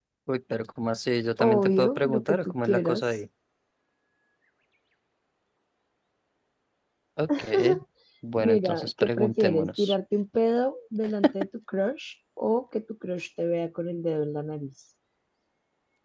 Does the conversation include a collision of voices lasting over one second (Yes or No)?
Yes